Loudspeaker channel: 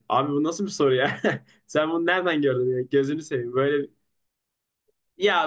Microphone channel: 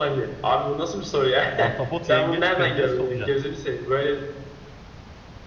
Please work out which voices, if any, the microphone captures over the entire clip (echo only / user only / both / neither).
both